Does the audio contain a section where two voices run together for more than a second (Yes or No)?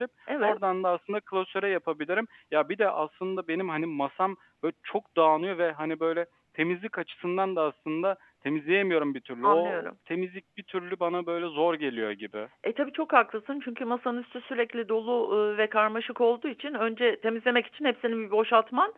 No